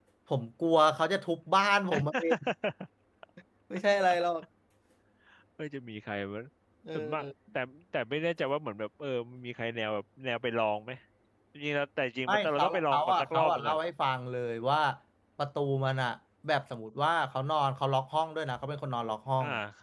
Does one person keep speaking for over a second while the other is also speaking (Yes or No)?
Yes